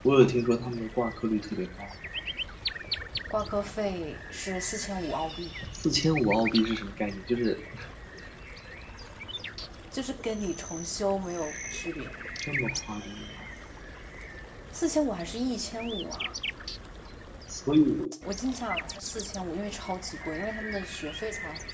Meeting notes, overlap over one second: none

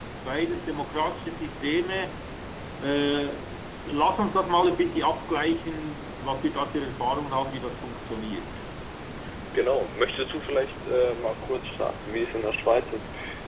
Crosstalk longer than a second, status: none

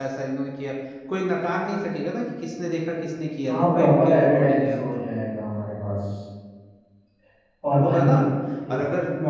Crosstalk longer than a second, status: present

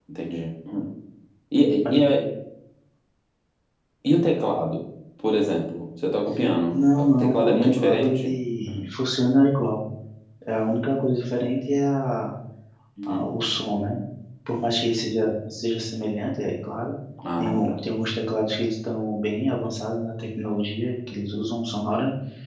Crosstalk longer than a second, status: present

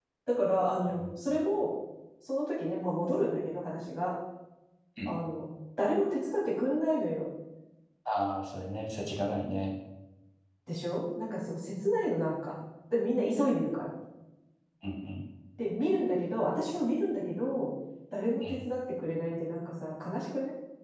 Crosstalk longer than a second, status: none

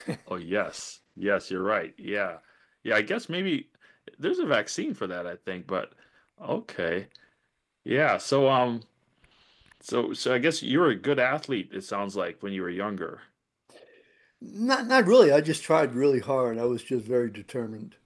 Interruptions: none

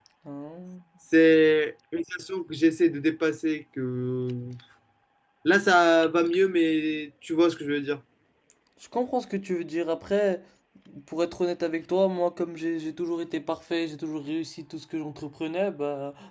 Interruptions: none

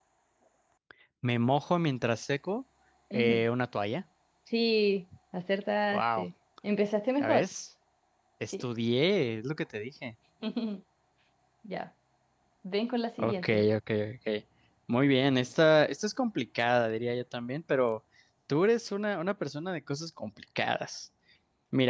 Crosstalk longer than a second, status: none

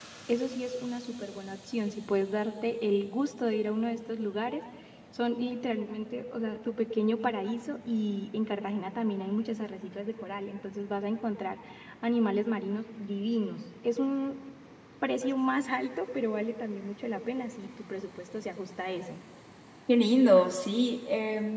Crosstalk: none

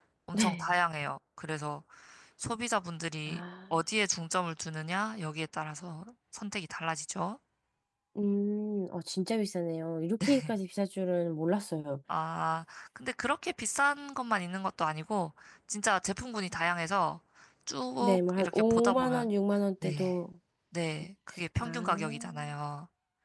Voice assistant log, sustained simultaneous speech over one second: present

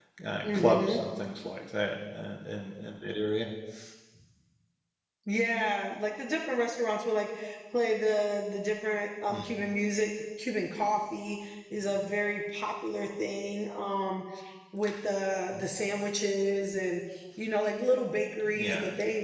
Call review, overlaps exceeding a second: none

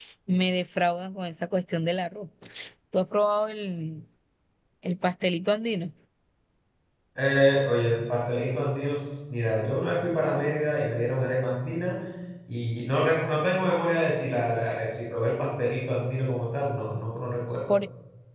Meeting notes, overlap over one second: none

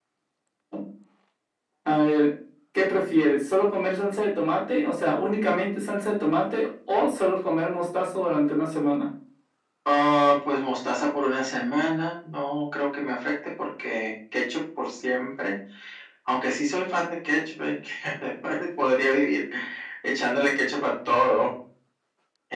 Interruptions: none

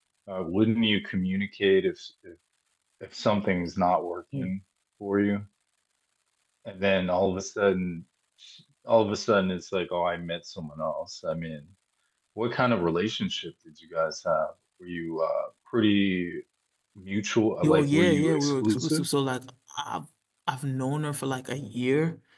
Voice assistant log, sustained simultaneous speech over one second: present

